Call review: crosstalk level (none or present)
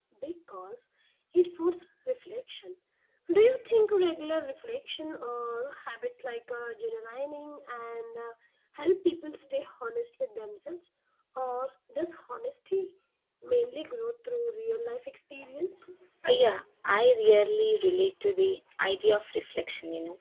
none